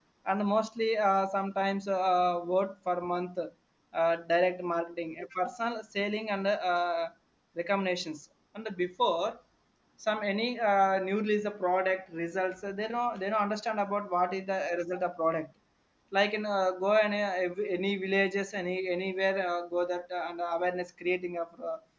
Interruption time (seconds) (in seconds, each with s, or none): none